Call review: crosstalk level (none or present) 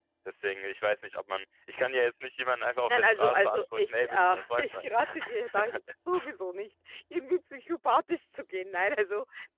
present